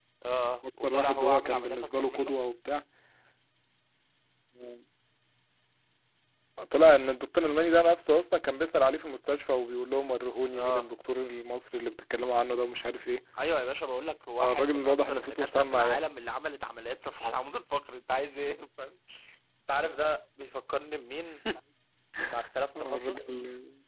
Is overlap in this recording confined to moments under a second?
No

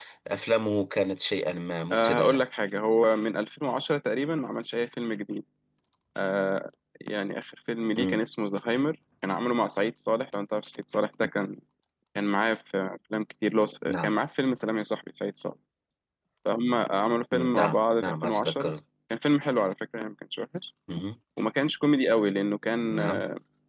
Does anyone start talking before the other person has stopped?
Yes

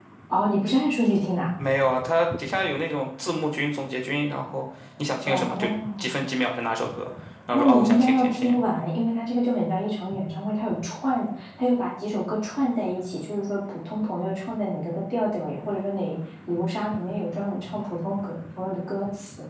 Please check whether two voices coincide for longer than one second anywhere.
Yes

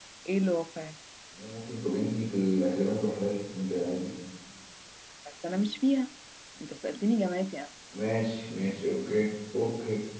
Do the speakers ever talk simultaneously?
No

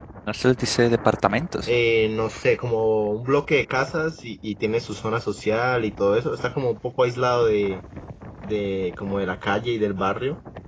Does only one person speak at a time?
Yes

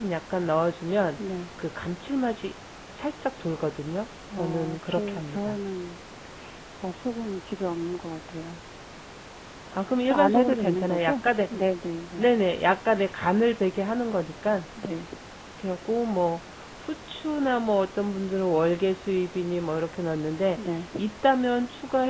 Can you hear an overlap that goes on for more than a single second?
Yes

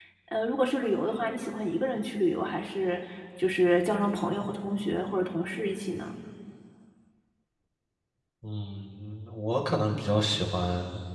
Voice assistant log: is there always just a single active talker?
Yes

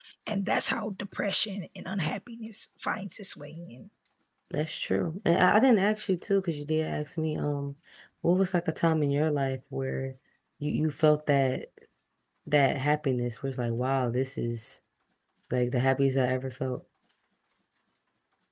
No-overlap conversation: Yes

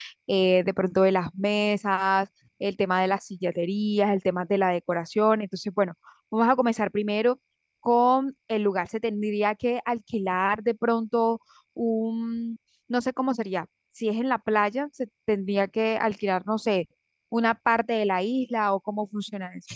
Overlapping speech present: No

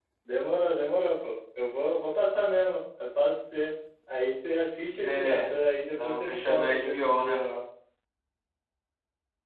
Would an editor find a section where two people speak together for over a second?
Yes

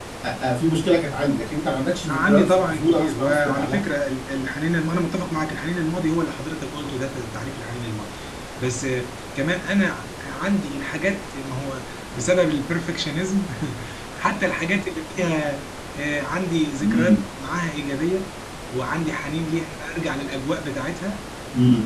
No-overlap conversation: No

